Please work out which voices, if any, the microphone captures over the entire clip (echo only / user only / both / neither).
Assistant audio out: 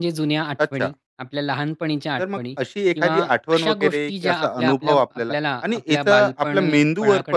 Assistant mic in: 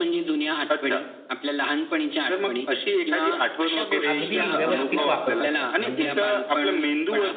both